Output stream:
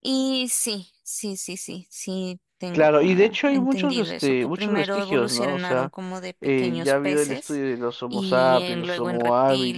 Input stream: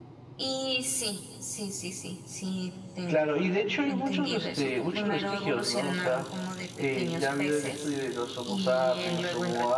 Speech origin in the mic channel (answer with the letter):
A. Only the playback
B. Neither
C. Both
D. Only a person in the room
A